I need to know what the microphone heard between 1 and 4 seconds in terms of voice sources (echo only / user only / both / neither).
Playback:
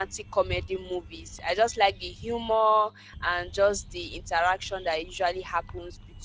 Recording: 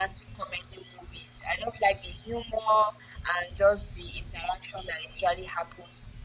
echo only